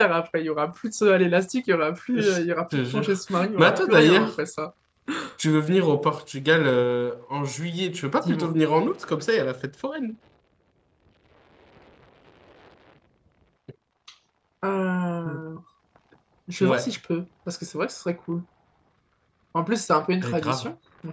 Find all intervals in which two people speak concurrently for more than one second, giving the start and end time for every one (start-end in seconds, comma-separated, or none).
2.9-4.3